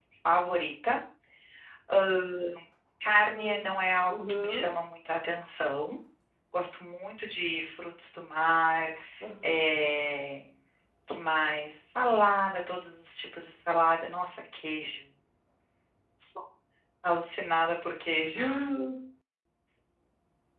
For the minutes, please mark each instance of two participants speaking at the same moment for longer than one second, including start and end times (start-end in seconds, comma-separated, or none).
3.2-4.7